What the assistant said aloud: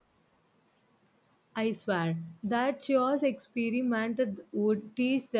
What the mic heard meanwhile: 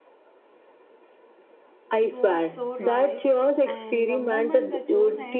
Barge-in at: 2.0 s

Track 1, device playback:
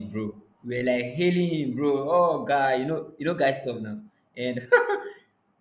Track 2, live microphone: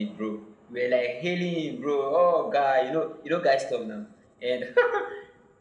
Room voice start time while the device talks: none

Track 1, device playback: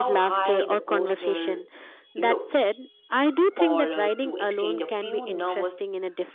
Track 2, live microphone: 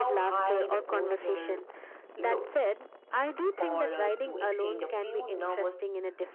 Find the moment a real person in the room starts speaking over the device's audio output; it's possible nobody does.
none

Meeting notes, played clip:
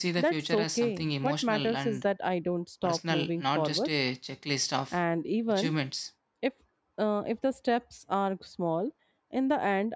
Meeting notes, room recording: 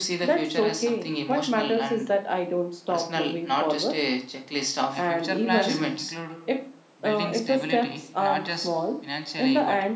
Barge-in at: 4.9 s

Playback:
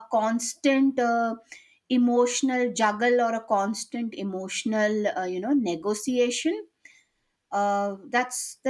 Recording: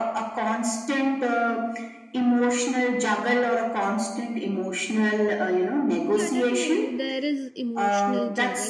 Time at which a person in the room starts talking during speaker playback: 6.1 s

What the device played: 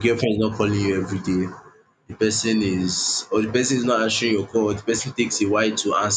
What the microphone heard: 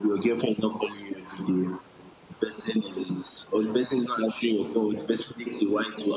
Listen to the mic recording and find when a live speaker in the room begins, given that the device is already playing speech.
none

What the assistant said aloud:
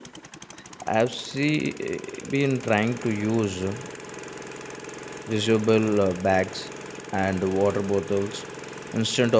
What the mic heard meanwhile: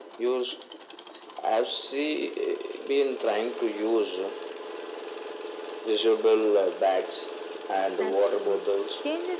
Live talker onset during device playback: 8.0 s

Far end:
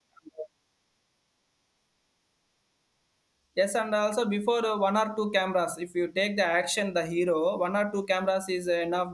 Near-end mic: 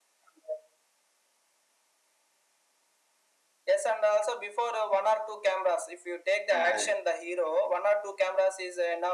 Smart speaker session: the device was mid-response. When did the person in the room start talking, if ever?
6.5 s

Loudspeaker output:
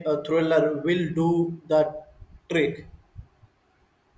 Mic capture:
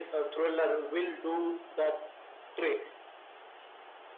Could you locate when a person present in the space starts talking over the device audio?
none

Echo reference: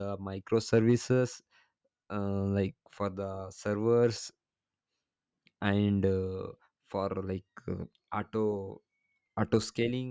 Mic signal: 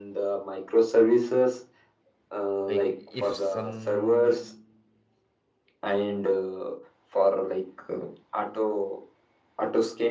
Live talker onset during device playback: 2.7 s

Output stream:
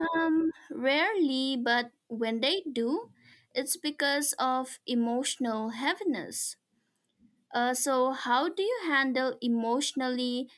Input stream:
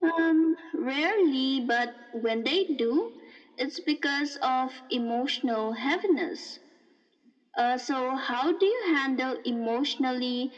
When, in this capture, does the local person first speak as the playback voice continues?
none

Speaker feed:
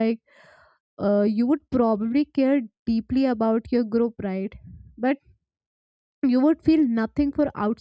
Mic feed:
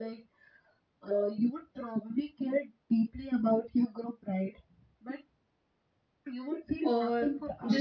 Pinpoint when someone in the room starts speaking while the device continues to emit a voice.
6.8 s

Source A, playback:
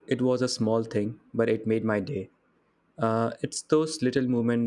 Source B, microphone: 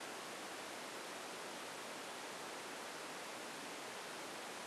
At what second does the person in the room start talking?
none

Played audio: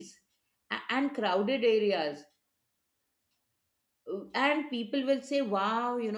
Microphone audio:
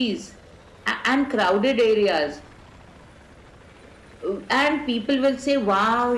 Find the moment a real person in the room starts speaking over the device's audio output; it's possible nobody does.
none

